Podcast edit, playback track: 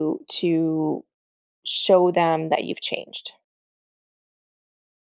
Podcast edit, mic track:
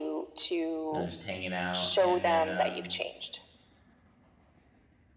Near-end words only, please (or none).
you know just hanging out. And then um,